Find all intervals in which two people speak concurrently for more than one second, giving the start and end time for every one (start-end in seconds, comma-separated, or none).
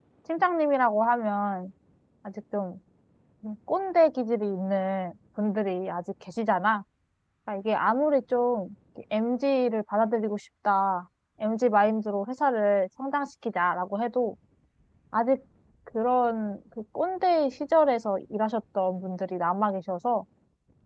none